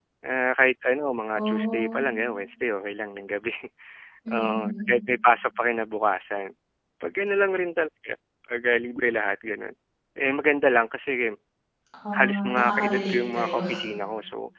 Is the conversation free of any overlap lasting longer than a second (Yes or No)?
No